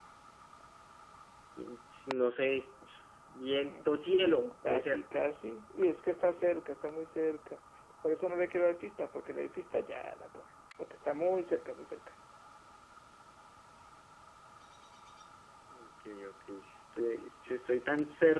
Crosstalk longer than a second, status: present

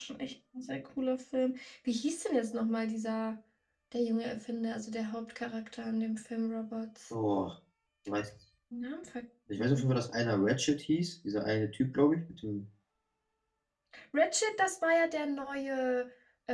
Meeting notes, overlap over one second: none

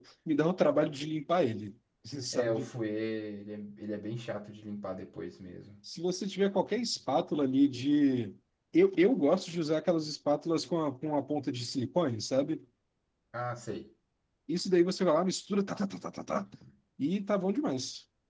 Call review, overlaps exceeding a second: none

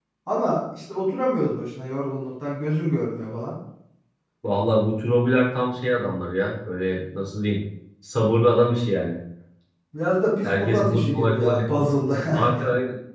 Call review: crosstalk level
present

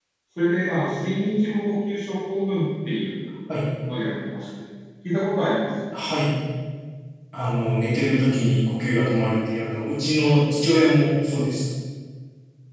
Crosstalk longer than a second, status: none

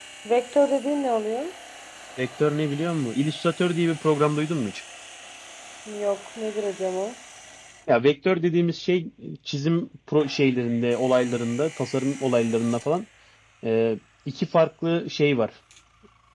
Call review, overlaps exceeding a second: none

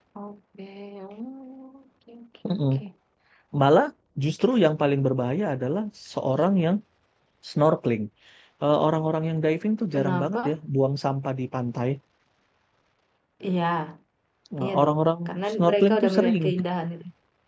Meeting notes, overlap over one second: present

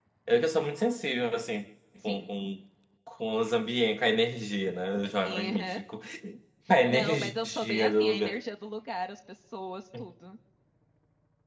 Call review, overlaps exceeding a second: present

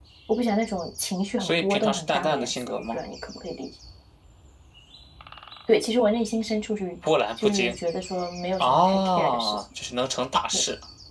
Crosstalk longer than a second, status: present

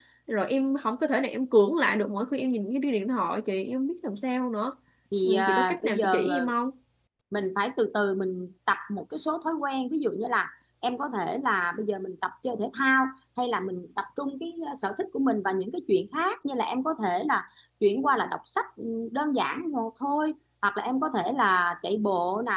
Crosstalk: present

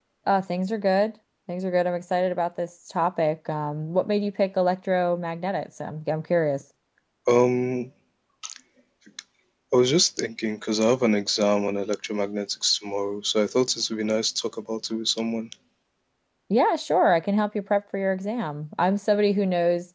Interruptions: none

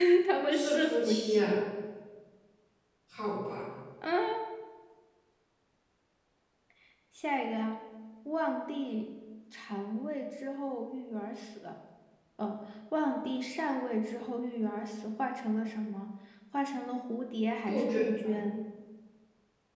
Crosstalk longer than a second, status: present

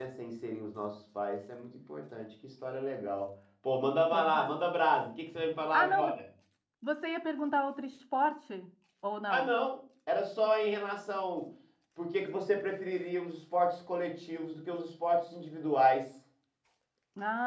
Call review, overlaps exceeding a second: none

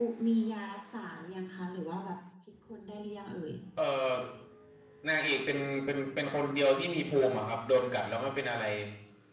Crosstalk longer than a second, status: none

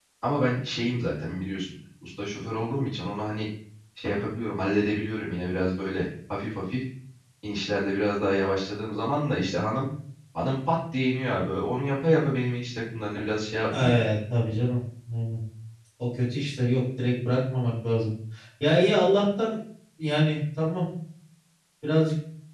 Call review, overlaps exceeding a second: none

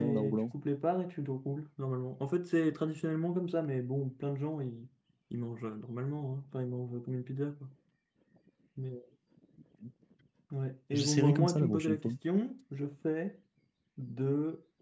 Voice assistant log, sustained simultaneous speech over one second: present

